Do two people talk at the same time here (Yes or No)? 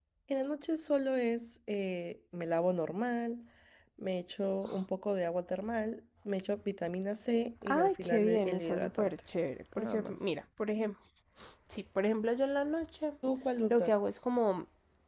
Yes